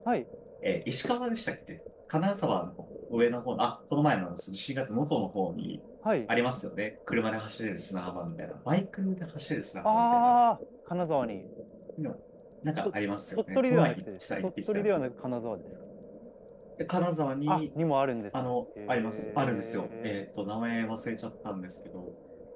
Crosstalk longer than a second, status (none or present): present